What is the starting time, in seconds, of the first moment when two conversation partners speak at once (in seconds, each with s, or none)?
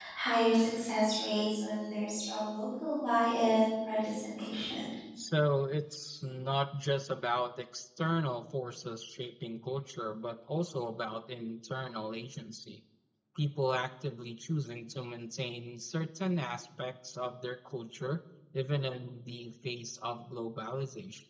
none